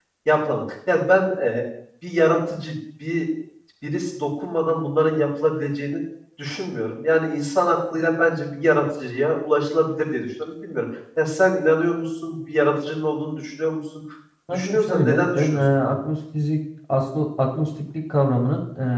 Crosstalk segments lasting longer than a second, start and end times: 14.5-16.0

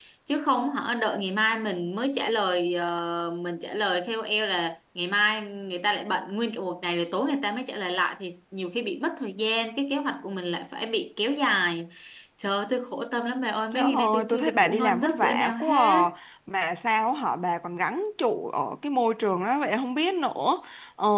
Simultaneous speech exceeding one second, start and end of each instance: 13.7-16.0

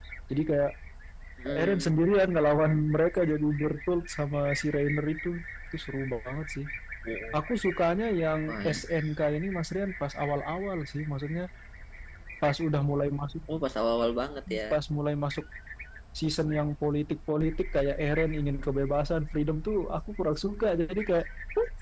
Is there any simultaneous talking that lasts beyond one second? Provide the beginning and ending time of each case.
none

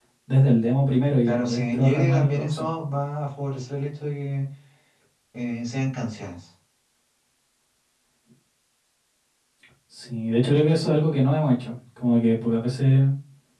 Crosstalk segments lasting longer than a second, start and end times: 1.3-2.7

